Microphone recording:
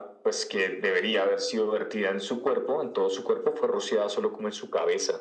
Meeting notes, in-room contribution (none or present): none